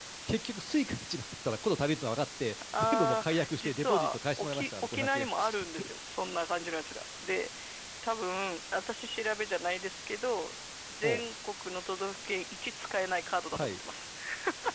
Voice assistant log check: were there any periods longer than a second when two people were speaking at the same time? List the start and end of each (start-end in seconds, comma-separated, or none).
2.8-5.3